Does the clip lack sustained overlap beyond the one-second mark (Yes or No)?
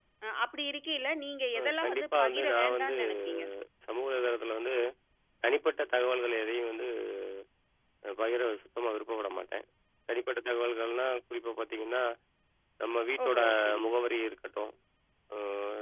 No